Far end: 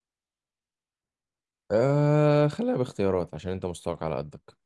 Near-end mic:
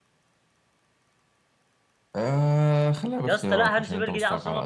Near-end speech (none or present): present